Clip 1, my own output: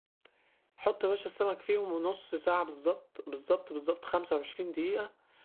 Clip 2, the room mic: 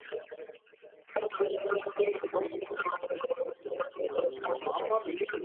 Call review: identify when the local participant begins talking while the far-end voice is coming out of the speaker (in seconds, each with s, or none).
4.1 s